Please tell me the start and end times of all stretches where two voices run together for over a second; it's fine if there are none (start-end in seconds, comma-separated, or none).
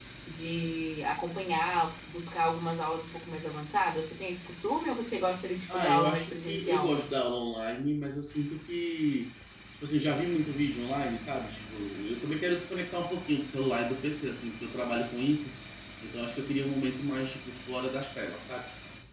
5.7-7.2